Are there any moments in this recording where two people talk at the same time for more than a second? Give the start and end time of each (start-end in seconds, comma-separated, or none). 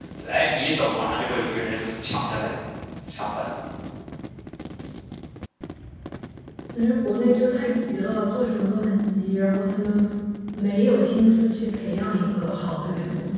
none